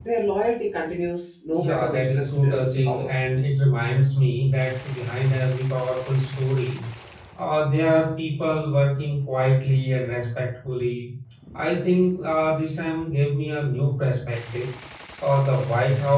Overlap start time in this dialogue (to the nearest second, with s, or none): 2 s